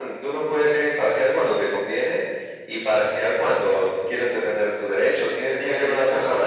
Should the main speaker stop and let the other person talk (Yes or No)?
Yes